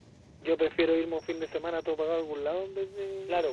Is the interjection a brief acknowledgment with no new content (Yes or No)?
No